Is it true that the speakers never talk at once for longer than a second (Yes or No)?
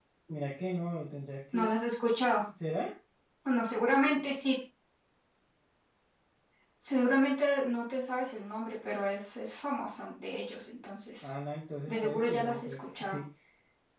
No